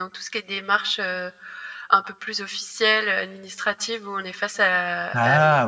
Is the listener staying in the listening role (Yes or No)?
Yes